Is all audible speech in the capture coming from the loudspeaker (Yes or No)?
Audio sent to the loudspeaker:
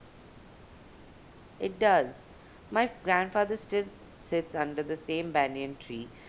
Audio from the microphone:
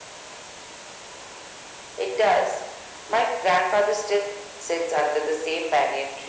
Yes